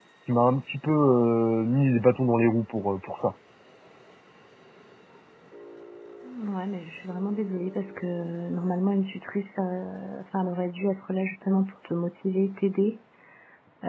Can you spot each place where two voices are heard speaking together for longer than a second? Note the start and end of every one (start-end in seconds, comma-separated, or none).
none